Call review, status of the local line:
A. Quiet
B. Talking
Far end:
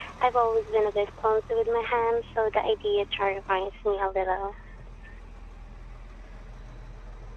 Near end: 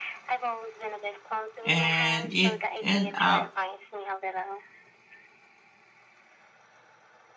B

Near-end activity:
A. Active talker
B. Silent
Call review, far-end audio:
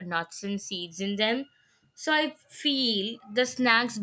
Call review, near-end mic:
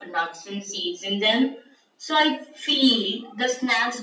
B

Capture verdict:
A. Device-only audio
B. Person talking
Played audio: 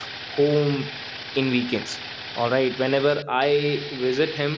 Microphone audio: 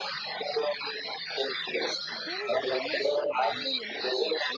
B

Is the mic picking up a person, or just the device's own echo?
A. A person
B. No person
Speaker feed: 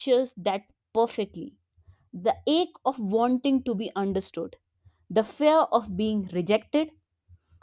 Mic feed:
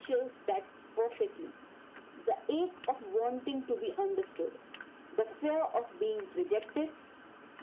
B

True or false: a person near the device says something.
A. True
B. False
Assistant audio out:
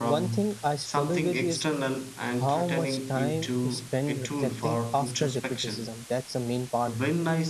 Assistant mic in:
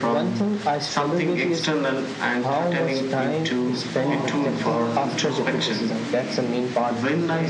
A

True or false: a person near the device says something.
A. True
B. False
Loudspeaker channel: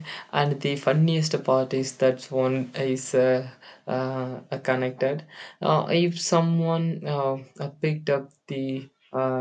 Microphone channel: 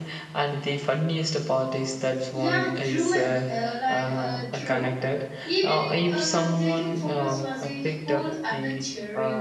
A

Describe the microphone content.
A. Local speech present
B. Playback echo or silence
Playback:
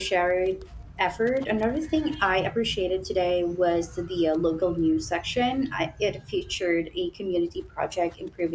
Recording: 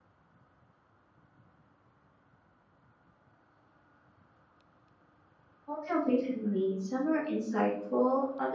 A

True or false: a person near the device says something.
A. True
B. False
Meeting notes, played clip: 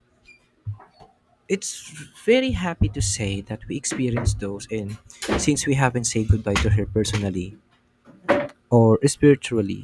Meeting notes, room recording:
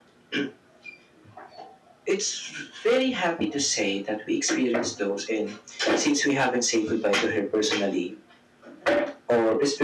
B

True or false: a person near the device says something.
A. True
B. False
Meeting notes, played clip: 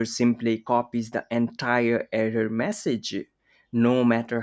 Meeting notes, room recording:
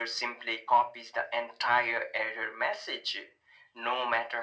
B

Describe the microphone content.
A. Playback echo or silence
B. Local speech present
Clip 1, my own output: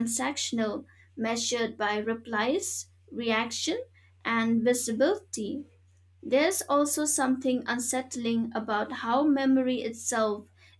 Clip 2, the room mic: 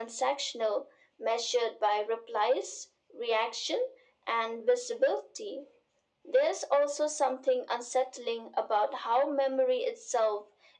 A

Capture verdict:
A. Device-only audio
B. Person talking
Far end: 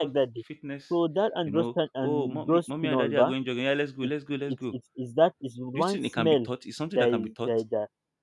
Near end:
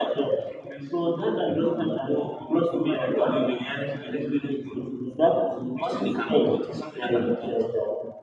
A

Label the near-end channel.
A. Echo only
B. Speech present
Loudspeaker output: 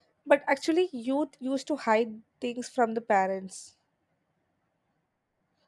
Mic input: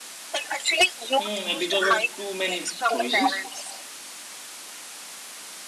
B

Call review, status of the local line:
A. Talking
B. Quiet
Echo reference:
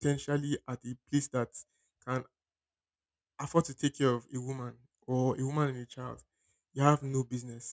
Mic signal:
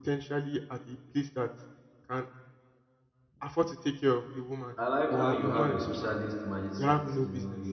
A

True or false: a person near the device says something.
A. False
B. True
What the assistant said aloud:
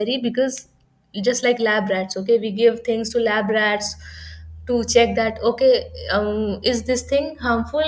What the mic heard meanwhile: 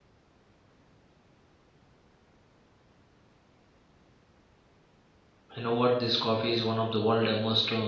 B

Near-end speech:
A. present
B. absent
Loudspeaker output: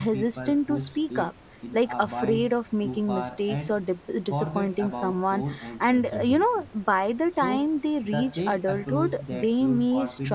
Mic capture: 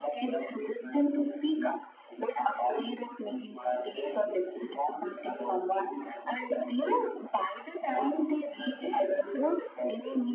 B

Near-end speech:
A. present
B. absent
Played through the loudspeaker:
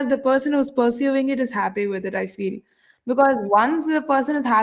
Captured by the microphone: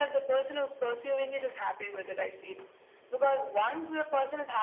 B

